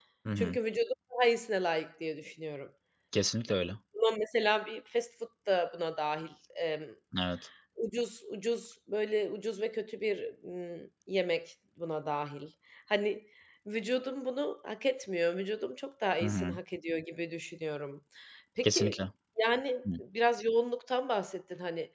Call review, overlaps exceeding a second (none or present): none